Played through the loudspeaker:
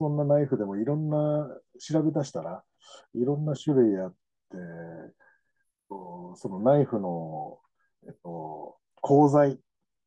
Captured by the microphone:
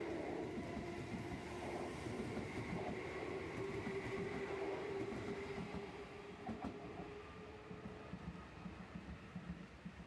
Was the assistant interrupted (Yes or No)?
No